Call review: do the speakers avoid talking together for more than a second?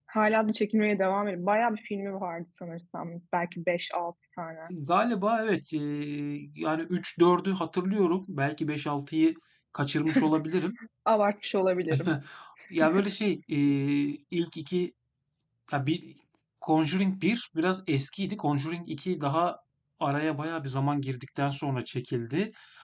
Yes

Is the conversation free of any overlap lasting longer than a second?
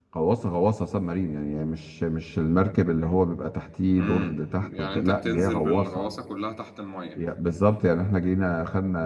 No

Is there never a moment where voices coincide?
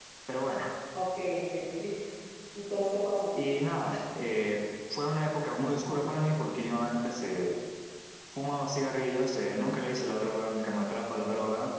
Yes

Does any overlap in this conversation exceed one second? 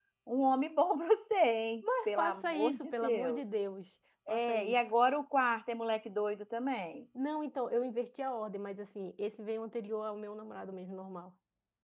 Yes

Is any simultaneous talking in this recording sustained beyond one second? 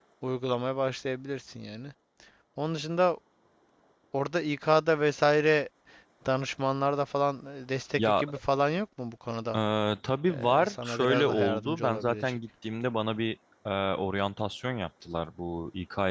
Yes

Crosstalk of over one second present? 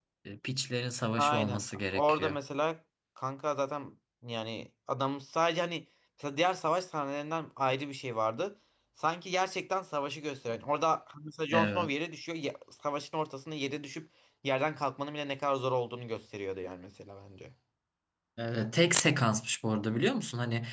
Yes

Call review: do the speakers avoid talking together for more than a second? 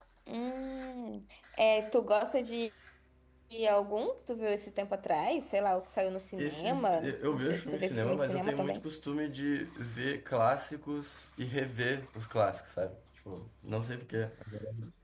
No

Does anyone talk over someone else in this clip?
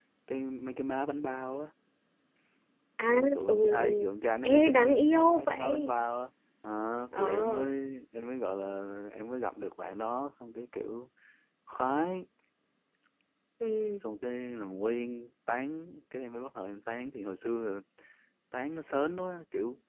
Yes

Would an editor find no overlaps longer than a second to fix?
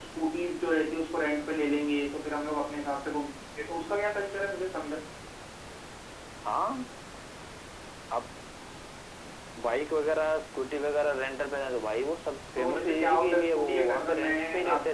No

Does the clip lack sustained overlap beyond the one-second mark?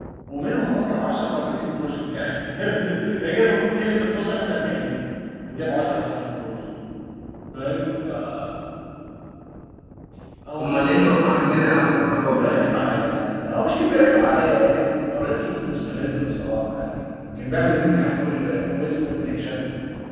No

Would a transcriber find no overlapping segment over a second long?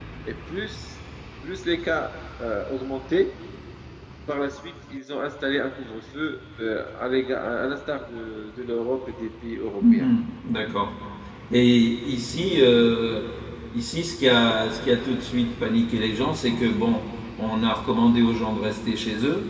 Yes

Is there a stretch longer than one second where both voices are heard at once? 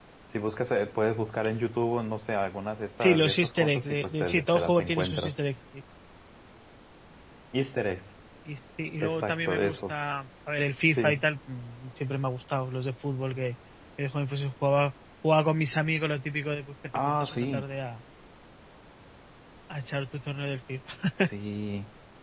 Yes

